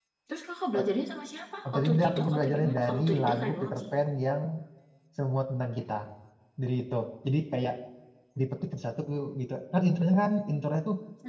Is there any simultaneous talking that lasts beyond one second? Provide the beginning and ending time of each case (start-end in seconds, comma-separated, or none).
1.7-3.8